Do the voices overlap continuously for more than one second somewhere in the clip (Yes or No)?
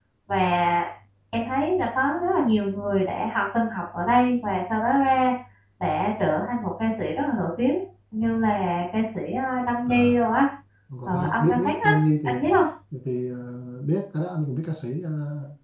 Yes